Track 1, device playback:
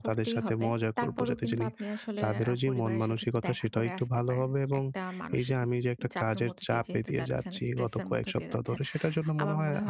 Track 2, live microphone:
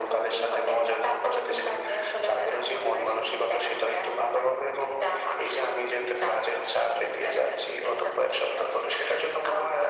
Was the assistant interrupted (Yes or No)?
No